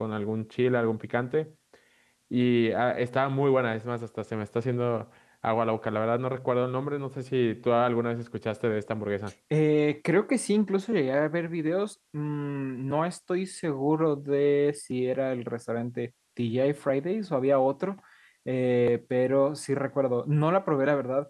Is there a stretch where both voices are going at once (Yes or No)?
No